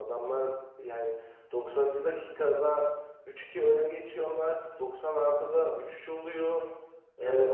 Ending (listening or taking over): listening